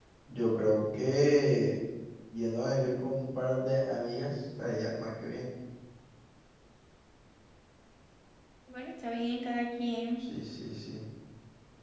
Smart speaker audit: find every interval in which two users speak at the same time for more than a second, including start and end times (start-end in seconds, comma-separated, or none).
none